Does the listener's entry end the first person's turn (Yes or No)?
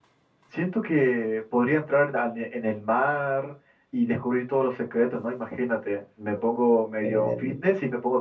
No